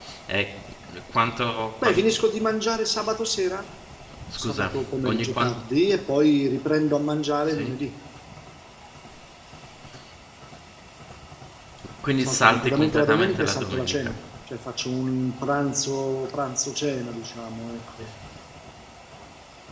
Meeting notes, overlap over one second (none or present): present